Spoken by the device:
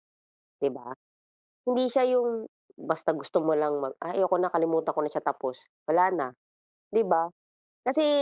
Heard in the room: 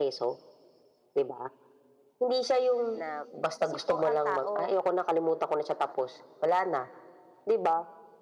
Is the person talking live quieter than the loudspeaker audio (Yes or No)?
Yes